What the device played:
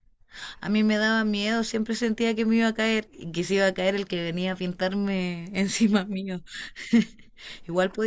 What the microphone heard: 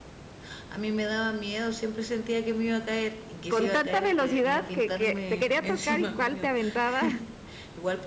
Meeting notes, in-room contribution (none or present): present